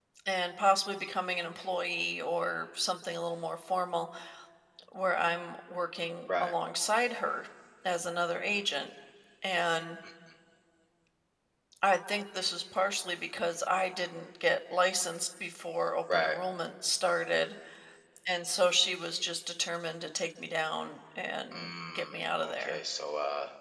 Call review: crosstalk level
present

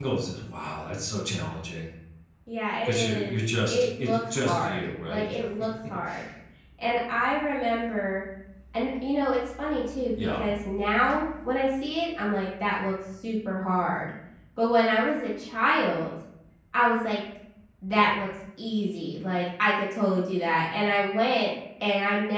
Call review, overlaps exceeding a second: present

